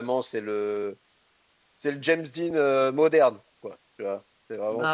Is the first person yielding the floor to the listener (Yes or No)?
No